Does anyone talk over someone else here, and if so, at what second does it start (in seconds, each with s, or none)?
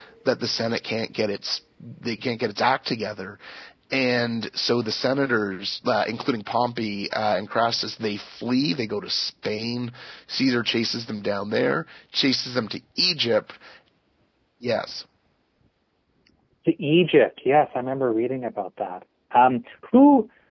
none